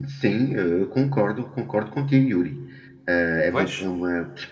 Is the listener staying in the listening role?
Yes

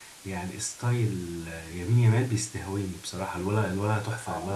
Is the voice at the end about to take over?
Yes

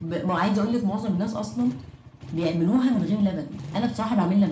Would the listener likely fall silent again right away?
No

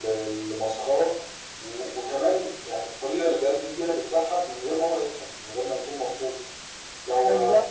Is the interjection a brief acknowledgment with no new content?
Yes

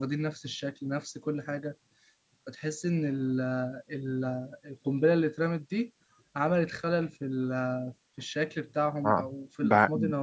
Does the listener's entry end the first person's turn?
Yes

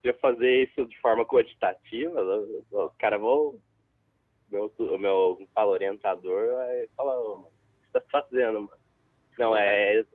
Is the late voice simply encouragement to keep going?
Yes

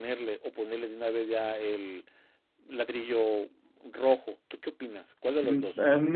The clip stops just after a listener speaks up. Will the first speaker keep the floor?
No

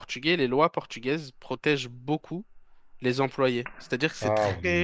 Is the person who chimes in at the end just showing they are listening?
Yes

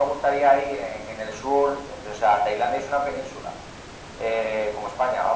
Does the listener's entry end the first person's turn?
No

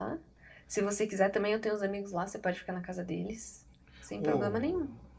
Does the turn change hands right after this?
Yes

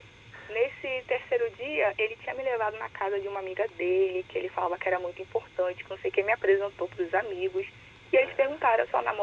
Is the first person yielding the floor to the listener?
No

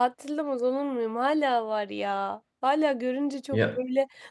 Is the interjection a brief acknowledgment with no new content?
Yes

